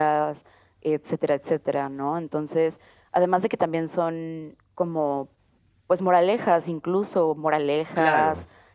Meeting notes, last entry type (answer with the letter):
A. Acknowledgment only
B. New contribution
A